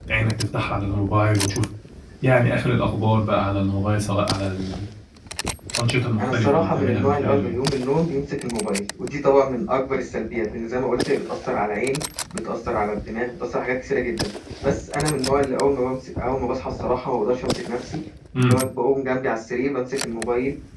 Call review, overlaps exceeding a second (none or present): present